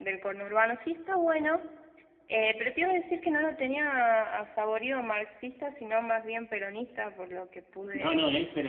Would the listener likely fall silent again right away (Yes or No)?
No